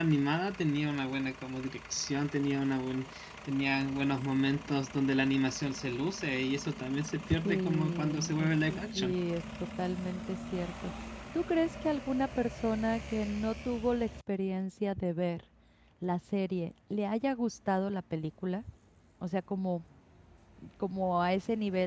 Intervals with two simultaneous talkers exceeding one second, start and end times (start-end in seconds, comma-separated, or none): 7.4-9.1